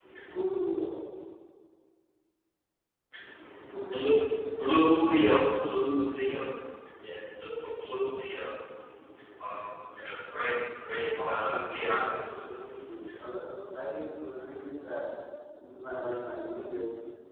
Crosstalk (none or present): present